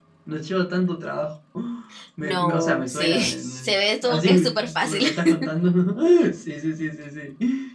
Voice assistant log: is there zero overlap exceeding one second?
No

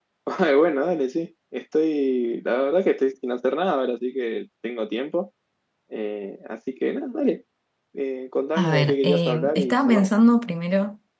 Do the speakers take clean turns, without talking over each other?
No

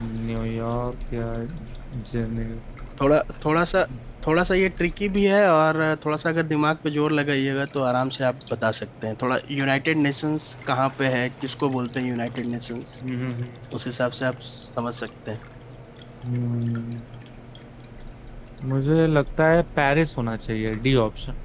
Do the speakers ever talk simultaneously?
No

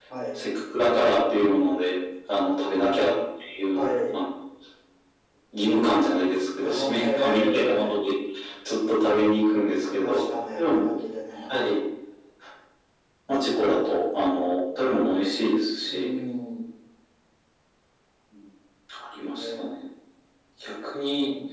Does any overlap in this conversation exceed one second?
Yes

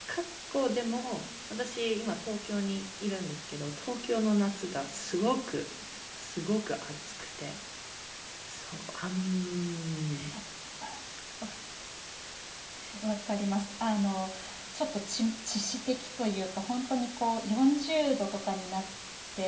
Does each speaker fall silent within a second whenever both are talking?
Yes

